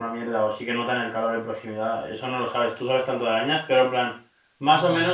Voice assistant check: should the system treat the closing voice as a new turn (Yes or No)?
No